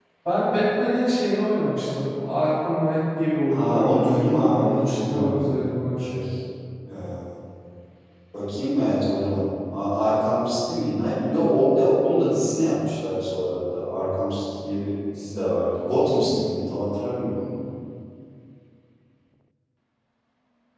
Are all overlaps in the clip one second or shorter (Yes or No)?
No